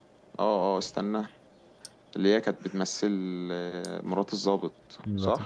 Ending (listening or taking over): taking over